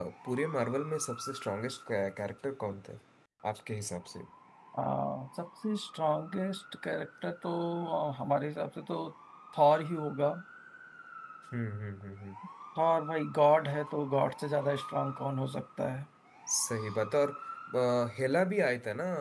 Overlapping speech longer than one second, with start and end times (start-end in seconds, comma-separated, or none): none